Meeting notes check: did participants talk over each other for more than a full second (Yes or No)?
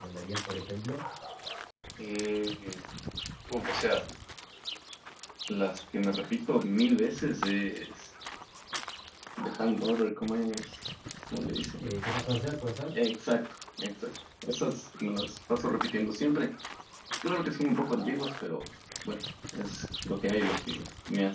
No